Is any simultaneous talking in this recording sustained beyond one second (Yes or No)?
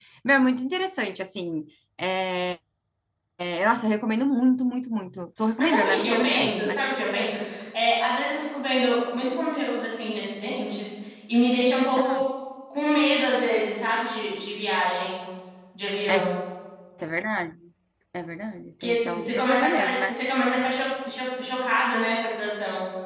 Yes